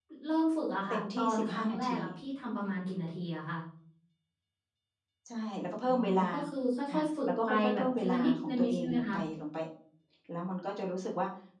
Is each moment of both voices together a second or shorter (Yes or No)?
No